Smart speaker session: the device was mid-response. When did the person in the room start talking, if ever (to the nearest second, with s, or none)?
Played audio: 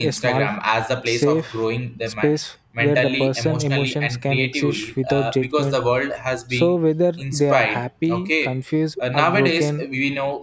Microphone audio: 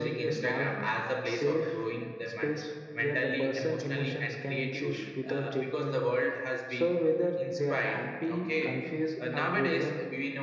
none